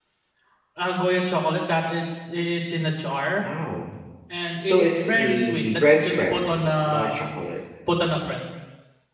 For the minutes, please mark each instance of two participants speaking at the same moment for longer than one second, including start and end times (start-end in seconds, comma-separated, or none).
4.6-7.1